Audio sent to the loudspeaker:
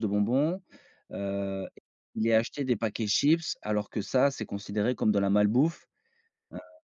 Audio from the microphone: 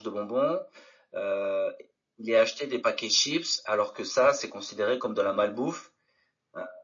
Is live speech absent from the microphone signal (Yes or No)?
Yes